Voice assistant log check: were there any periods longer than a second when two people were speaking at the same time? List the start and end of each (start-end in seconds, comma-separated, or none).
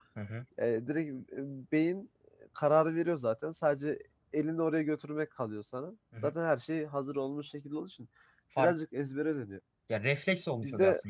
none